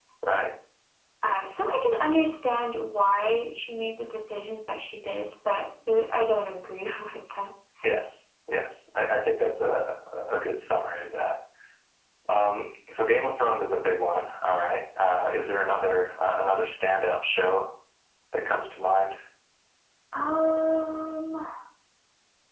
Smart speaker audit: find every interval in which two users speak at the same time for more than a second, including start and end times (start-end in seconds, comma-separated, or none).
none